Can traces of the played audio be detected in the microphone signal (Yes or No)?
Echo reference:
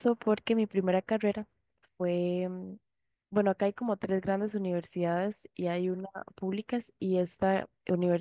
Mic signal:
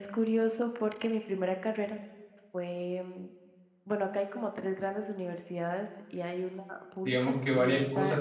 Yes